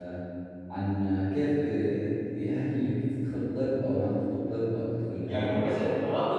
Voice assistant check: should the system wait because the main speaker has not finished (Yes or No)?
No